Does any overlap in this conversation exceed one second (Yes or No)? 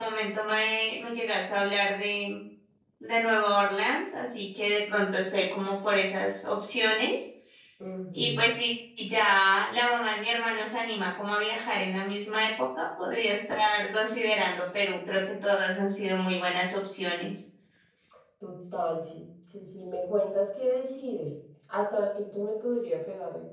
No